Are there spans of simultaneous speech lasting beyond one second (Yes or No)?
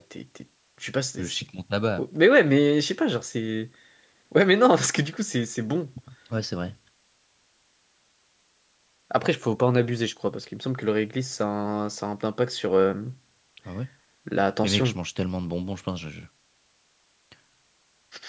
No